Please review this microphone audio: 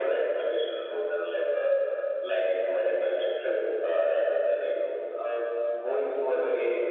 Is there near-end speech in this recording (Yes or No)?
No